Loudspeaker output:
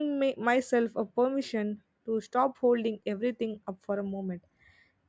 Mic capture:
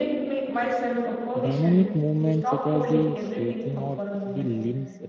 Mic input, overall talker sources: both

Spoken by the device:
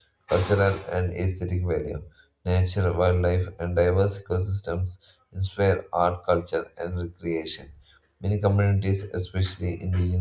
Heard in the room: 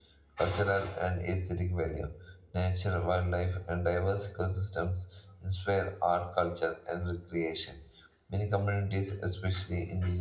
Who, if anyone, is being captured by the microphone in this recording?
echo only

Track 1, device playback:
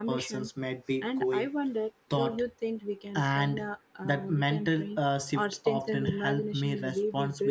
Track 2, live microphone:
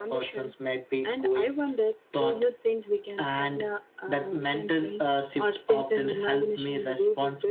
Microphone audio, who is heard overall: echo only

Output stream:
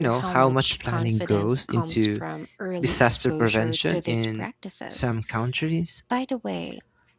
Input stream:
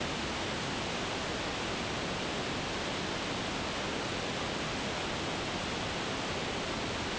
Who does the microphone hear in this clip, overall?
neither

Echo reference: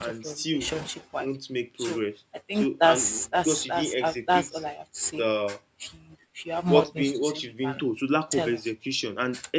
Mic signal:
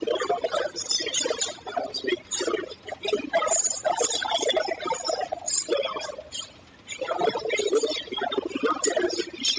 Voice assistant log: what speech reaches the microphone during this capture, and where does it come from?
echo only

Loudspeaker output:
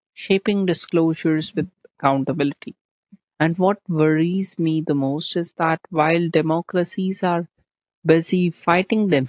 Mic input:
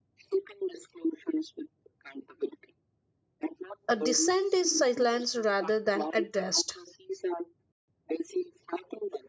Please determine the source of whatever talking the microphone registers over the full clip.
both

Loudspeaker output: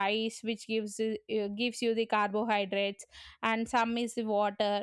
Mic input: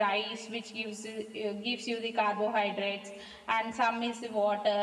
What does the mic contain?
echo only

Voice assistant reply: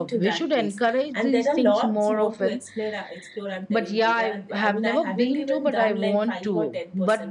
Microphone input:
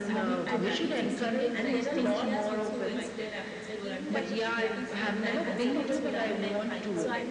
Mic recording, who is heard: both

